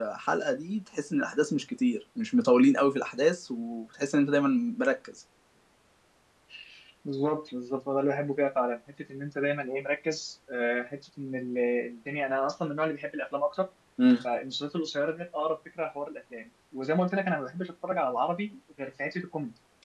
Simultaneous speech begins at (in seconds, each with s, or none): none